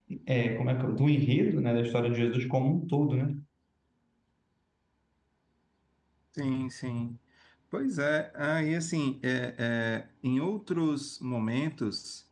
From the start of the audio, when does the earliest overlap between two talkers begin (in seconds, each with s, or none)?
none